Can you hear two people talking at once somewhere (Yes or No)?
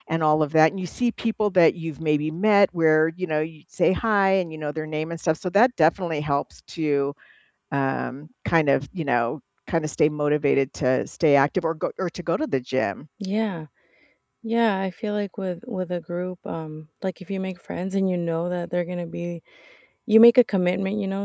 No